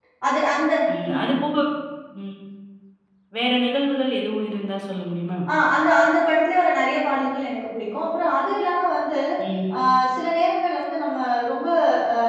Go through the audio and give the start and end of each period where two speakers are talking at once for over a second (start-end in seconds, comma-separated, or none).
none